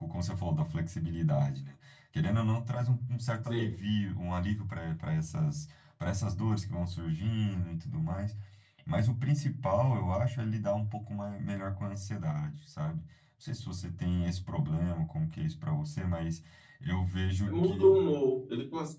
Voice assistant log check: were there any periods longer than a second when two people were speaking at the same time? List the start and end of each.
none

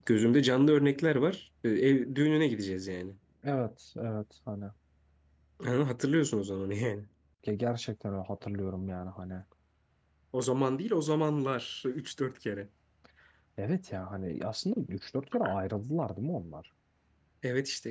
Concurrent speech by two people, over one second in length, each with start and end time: none

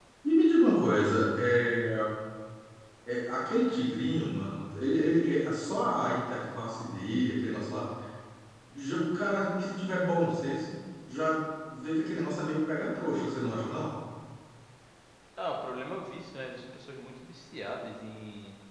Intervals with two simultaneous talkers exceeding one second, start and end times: none

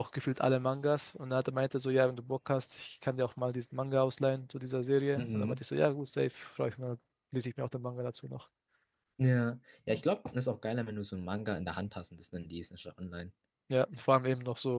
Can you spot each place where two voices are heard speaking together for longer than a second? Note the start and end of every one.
none

